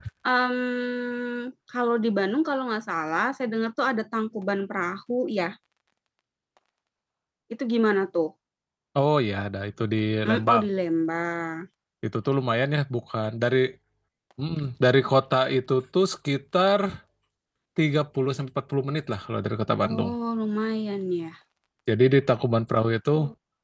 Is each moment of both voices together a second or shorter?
Yes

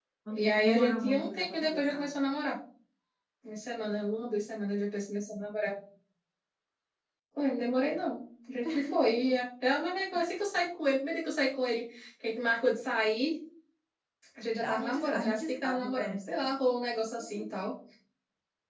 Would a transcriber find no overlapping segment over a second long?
No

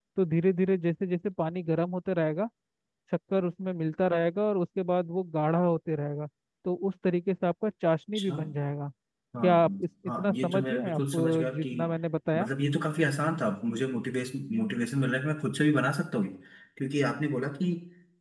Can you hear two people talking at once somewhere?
Yes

